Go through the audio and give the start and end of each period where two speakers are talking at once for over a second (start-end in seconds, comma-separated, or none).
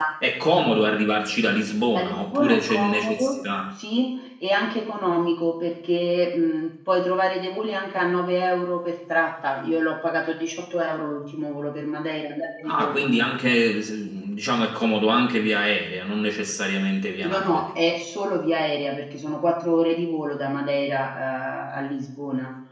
1.9-3.5